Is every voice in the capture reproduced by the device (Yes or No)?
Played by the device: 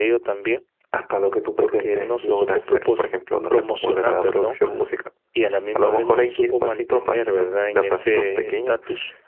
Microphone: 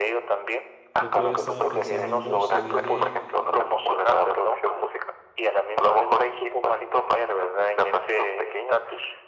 No